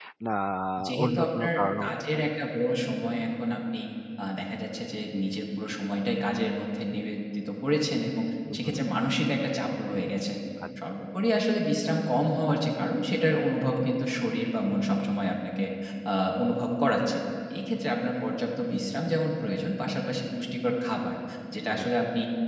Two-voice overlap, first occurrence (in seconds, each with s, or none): 1.0 s